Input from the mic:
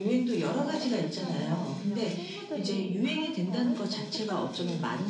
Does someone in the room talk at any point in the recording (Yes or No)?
Yes